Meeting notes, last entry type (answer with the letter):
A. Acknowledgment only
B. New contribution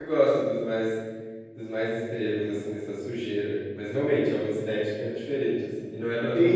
B